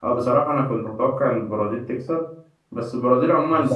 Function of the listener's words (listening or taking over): listening